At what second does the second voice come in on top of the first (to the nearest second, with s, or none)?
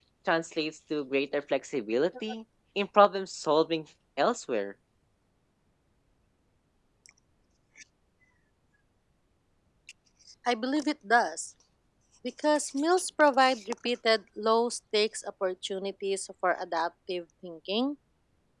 none